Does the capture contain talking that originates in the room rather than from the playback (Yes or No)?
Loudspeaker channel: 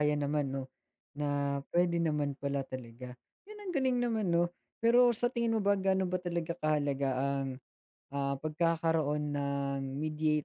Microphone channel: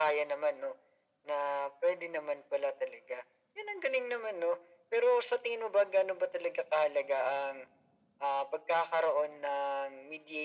No